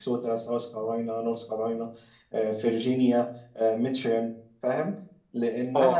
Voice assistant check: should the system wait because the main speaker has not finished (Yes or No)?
Yes